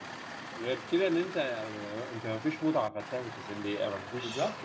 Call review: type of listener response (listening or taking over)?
listening